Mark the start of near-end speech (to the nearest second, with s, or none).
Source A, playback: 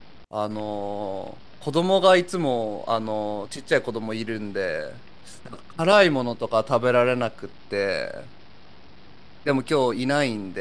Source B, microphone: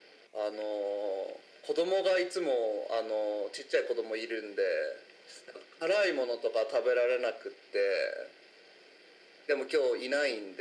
none